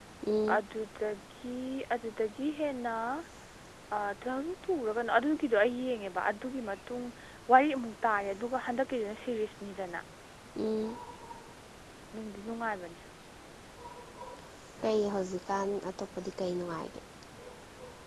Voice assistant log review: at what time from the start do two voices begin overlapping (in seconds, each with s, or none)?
none